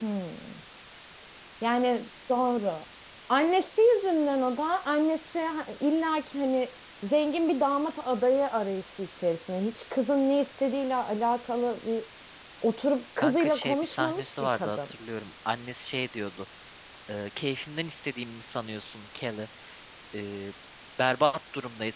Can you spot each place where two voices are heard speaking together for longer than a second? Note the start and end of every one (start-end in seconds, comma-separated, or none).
13.2-14.9